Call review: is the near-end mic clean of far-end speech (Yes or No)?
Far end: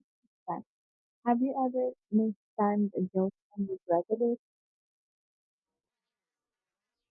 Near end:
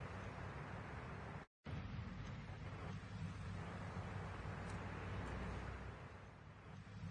Yes